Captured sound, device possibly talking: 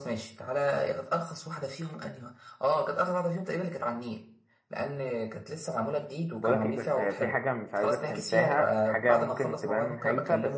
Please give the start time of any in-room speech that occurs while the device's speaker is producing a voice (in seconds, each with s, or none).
6.4 s